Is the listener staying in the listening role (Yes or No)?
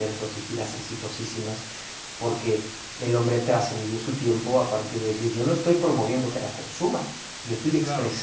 Yes